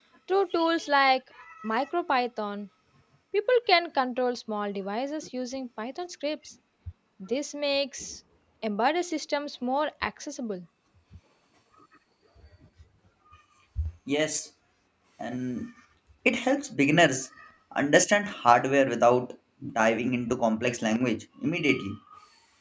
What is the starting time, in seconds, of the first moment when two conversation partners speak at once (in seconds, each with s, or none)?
none